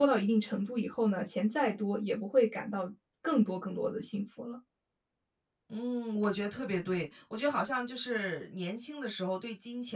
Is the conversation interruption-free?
Yes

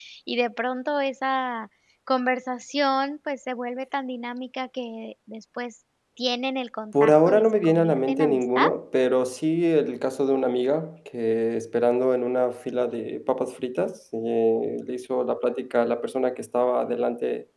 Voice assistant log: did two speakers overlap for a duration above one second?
Yes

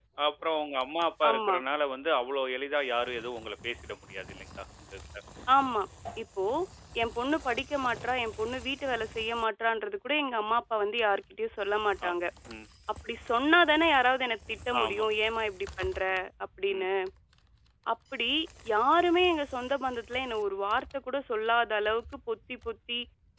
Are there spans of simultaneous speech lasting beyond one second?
No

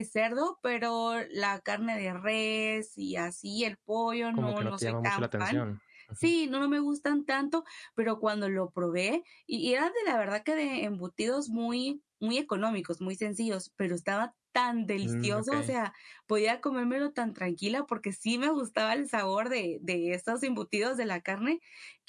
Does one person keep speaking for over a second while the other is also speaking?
Yes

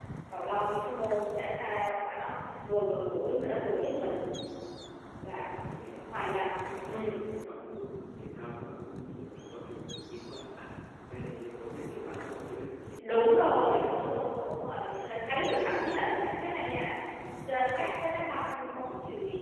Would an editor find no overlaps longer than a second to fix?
Yes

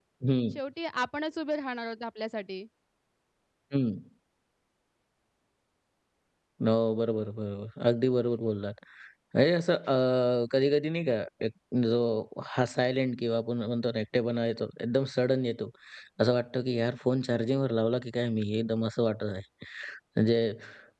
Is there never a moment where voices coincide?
Yes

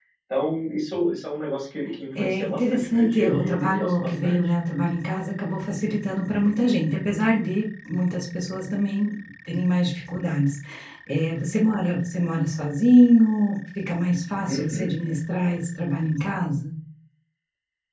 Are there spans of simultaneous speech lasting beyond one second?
Yes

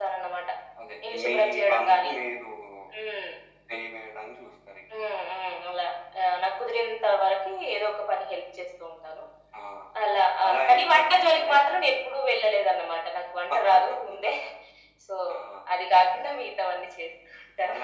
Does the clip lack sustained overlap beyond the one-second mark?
No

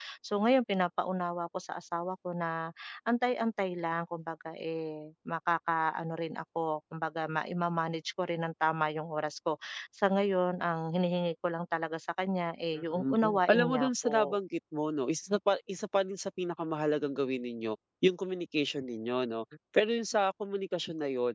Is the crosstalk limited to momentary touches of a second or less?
No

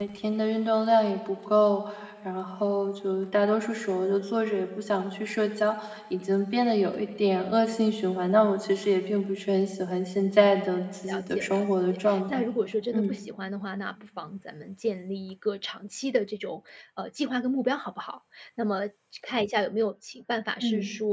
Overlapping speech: Yes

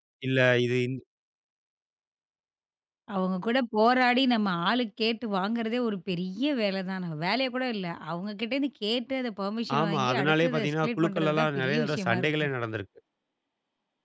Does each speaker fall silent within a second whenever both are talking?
No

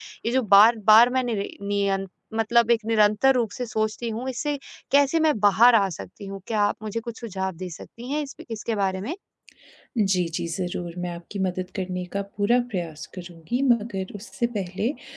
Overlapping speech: No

